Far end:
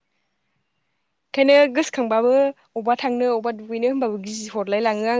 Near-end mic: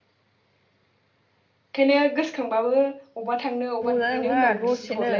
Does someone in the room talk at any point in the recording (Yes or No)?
Yes